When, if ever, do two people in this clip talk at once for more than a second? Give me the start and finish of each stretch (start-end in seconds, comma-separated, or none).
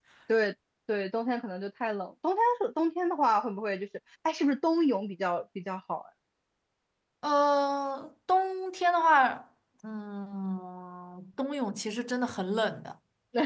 none